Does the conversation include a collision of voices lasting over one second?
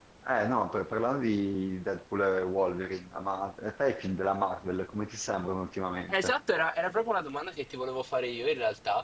No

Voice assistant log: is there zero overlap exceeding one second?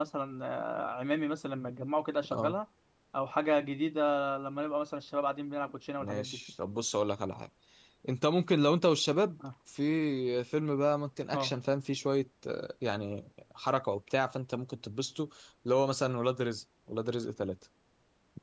Yes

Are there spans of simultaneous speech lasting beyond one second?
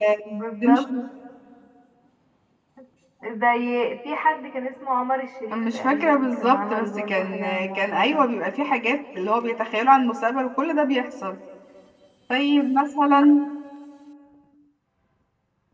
Yes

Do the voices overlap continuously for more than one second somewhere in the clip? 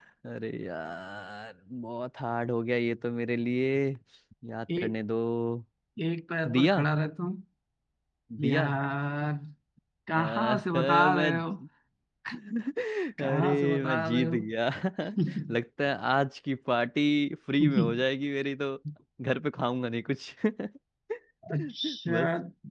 Yes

